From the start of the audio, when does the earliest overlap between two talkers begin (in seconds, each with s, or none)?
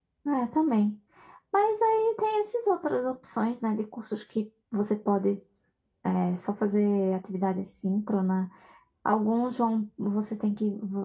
none